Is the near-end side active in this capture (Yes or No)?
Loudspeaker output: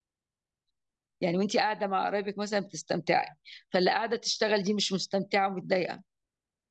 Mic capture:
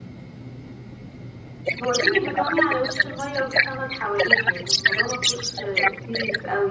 Yes